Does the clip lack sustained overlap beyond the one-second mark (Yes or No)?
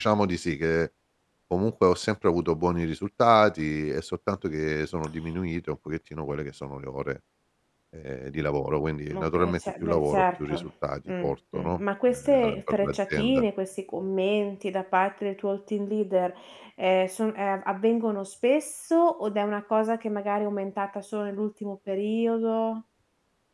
No